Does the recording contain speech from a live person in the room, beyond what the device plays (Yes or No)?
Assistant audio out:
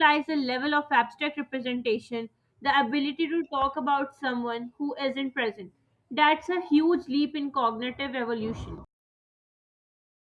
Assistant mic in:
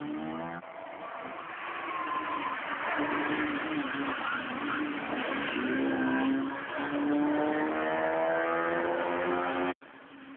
No